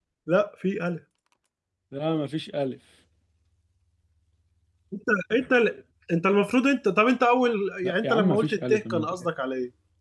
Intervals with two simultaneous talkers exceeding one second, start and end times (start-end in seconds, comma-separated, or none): 7.9-9.1